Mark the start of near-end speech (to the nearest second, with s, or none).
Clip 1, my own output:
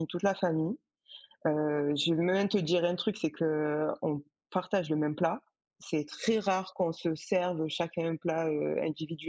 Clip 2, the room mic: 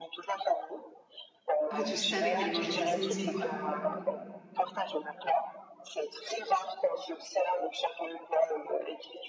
2 s